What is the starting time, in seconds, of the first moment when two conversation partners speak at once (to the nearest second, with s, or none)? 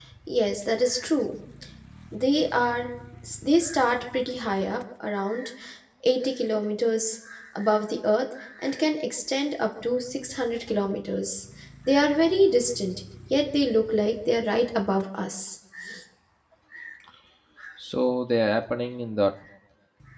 none